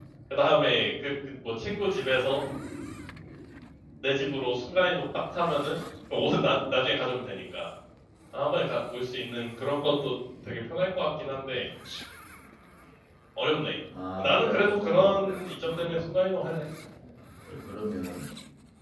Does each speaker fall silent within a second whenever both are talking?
No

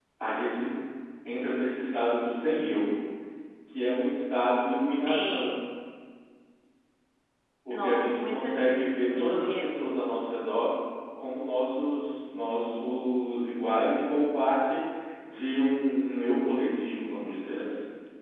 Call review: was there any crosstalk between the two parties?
Yes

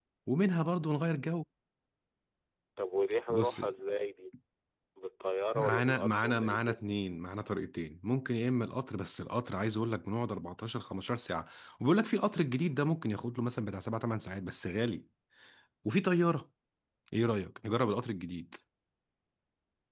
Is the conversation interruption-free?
No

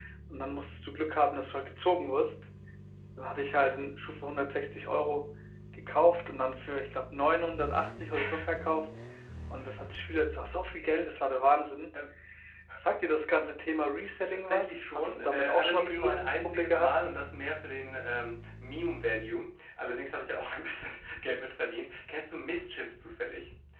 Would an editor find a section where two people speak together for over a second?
Yes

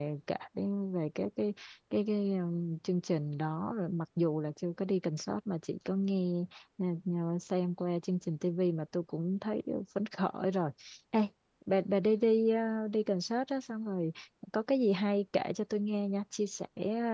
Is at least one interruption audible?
No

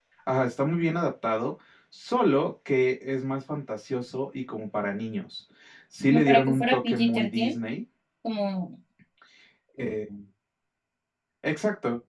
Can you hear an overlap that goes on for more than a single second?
Yes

